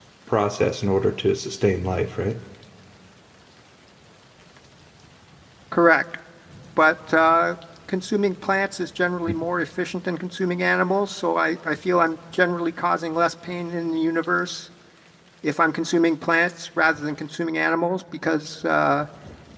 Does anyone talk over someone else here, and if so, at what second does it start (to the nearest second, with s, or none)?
none